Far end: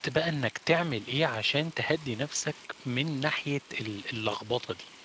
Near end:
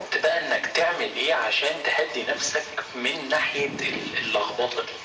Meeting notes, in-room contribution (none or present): none